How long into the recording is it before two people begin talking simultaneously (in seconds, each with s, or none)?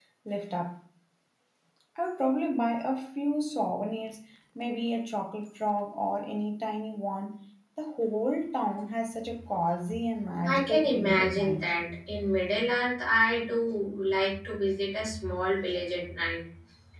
10.4 s